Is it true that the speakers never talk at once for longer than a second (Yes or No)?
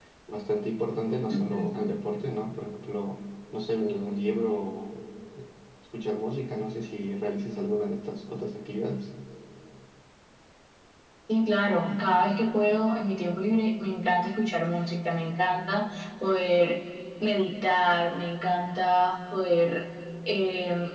Yes